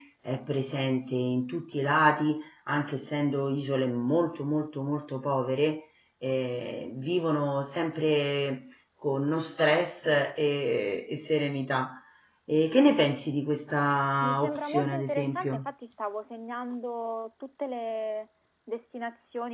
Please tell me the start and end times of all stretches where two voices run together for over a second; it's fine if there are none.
14.2-15.7

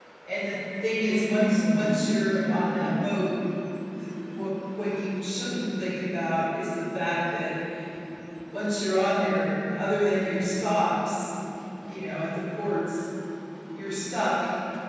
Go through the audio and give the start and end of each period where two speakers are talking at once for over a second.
1.0-2.9

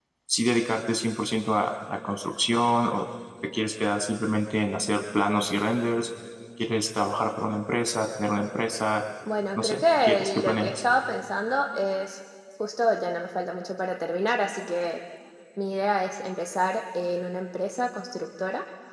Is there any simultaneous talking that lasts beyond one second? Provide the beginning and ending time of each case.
9.6-10.8

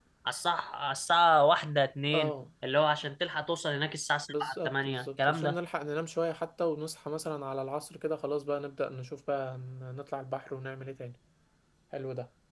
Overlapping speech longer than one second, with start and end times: 4.3-5.6

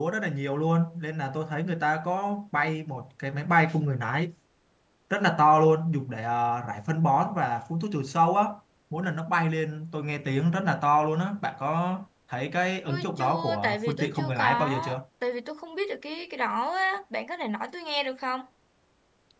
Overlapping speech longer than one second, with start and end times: 12.9-14.7

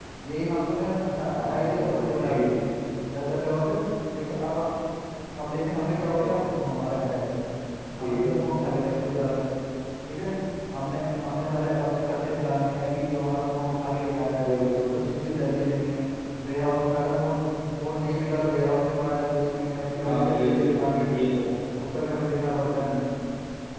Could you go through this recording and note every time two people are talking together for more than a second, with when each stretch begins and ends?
1.3-2.6, 20.0-21.2

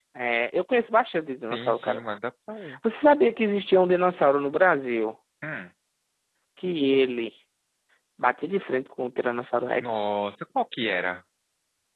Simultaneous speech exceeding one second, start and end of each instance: none

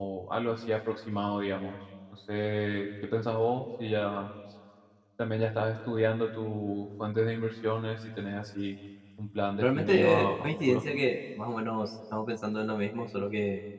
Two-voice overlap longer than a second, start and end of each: 9.6-10.8

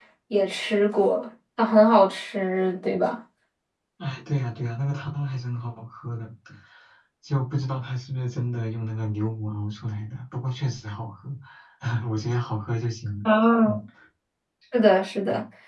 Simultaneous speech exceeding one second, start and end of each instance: none

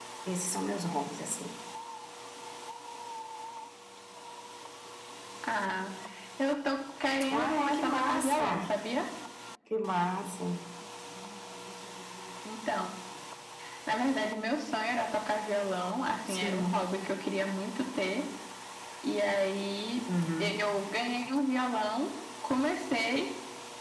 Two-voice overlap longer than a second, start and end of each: 7.3-8.6

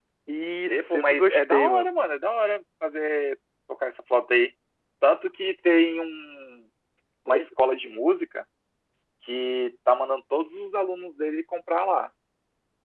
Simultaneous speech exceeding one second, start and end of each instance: 0.7-1.9

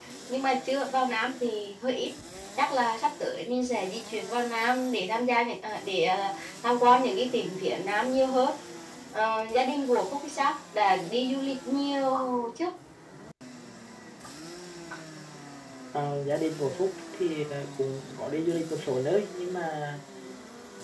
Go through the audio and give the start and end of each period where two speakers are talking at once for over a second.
none

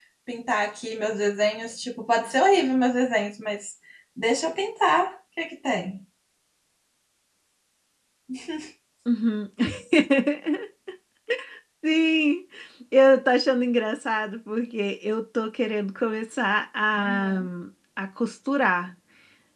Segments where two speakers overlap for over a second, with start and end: none

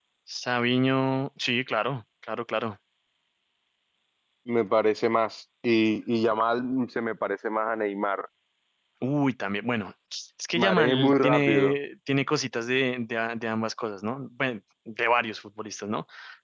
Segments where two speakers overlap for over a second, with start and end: 10.5-11.7

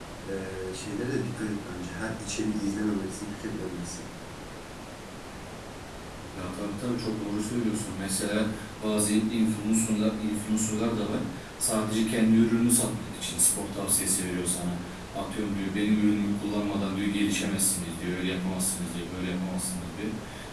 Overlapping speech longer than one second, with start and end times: none

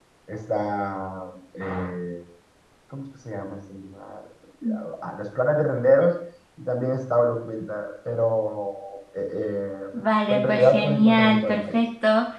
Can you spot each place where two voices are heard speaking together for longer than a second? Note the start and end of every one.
10.3-11.8

